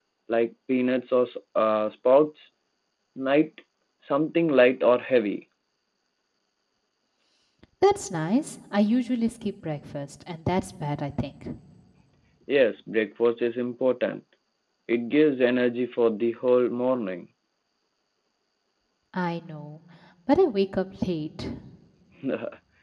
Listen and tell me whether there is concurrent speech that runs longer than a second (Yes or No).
No